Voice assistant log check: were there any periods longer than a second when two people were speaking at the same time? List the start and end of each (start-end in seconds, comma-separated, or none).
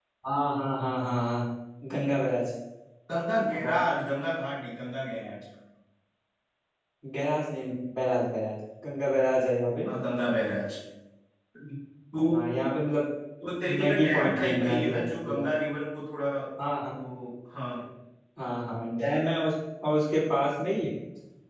13.8-15.4